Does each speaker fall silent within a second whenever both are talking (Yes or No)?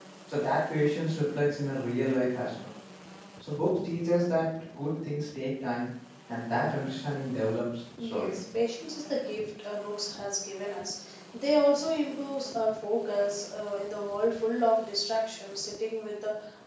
Yes